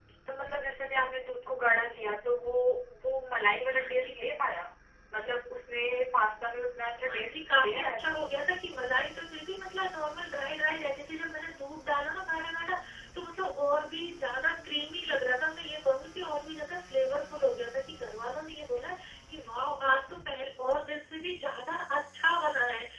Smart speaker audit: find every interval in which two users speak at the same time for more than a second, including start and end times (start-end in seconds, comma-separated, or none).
7.0-8.3